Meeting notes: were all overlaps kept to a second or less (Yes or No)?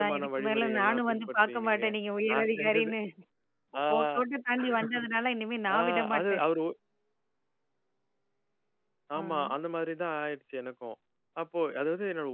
No